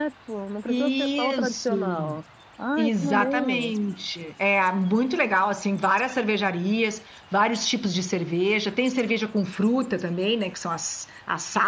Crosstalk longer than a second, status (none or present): present